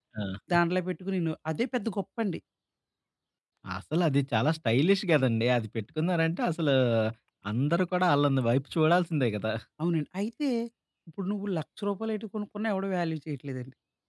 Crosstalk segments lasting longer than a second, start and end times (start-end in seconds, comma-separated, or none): none